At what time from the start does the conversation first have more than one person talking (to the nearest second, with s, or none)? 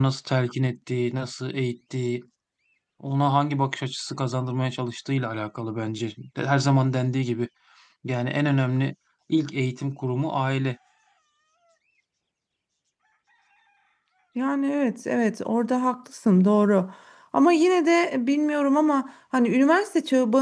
none